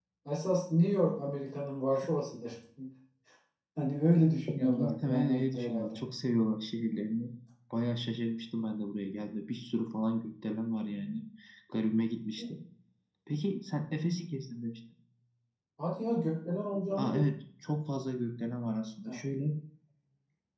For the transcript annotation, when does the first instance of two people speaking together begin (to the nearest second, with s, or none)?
5 s